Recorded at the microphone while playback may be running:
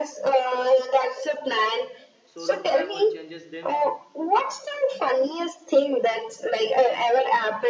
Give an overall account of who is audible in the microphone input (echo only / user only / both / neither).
both